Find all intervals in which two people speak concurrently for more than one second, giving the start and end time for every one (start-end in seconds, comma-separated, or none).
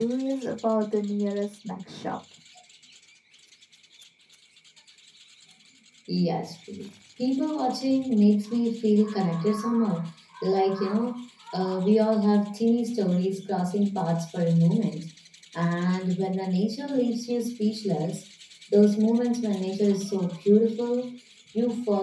none